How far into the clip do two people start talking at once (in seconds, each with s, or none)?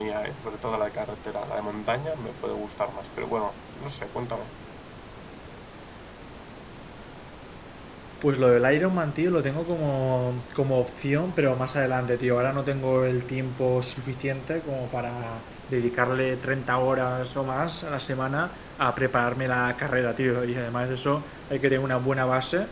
none